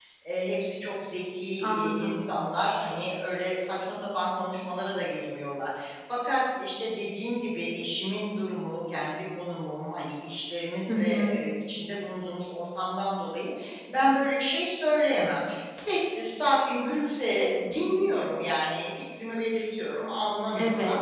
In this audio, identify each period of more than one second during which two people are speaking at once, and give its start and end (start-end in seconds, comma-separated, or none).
none